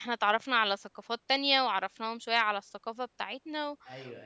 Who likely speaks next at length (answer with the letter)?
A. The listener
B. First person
A